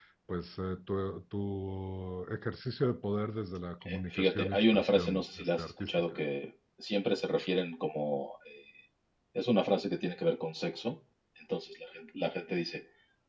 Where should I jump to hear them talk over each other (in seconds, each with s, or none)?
3.8 s